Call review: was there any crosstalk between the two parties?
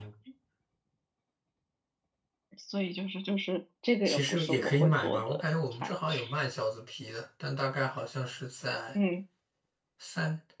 Yes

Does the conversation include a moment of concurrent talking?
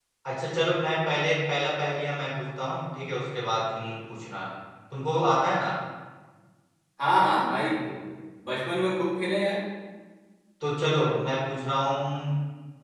No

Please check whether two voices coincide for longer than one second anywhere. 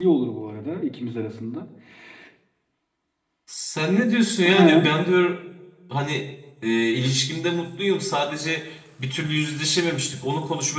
No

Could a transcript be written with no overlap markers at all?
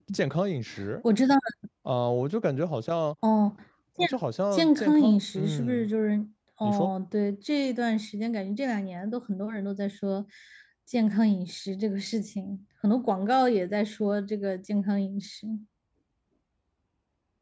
No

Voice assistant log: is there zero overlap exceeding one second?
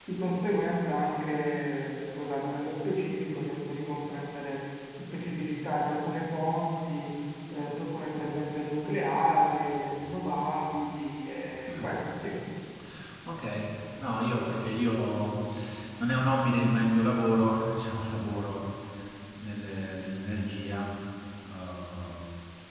Yes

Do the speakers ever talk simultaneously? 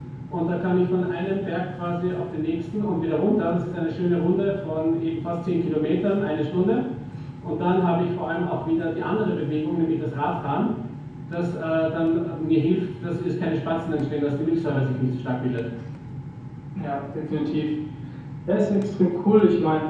No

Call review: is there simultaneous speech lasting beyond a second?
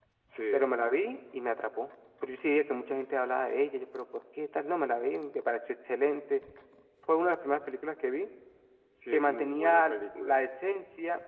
Yes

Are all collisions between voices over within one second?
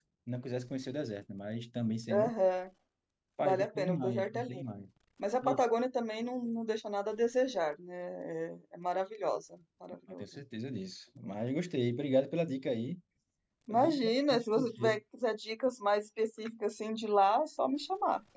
No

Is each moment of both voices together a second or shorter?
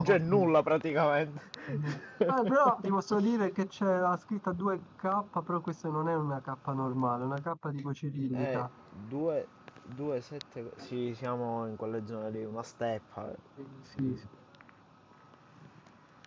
Yes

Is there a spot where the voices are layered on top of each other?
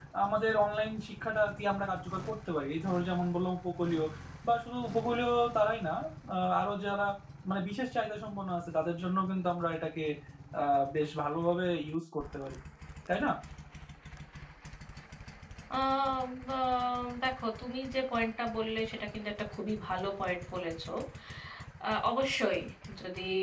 No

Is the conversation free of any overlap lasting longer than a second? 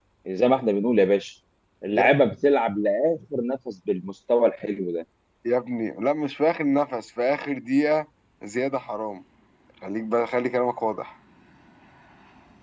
Yes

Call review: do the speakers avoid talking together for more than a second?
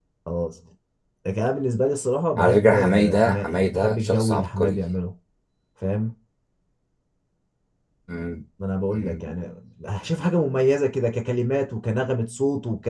No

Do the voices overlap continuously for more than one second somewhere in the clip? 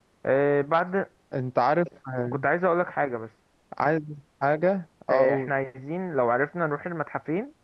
No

